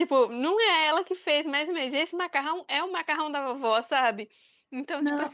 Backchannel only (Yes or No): Yes